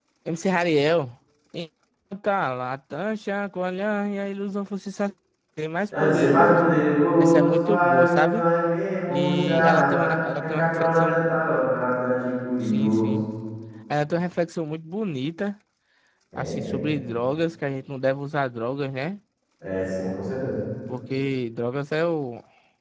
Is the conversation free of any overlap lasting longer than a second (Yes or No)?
No